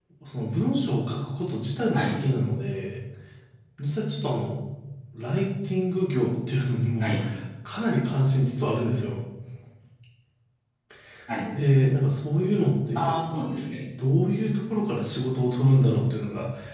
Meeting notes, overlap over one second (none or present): none